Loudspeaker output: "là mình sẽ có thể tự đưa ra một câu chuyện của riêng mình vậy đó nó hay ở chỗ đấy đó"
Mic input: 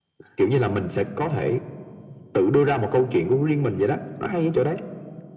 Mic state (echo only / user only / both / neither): echo only